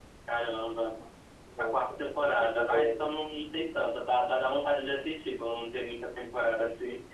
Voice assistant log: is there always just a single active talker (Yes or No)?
No